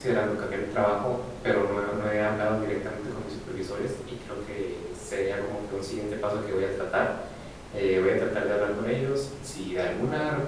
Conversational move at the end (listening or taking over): listening